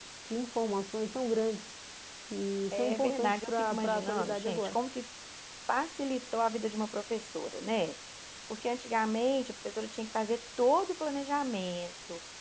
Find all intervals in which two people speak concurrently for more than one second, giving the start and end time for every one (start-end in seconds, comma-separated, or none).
2.7-4.8